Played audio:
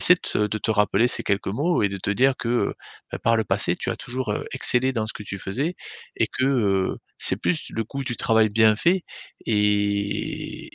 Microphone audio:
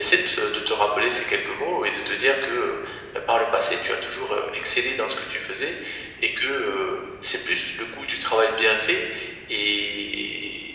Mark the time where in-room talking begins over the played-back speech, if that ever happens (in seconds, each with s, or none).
none